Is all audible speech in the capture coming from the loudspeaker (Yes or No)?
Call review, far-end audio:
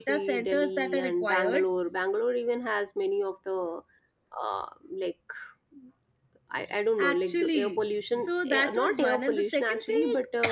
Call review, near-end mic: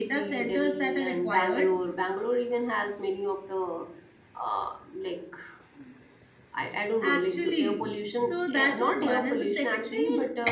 Yes